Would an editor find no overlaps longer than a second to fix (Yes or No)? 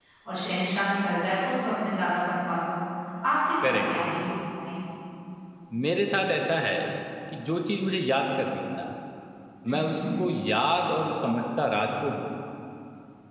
Yes